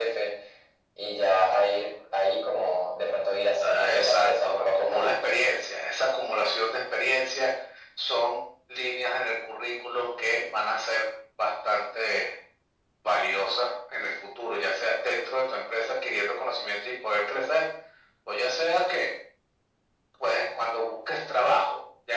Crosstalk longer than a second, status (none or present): present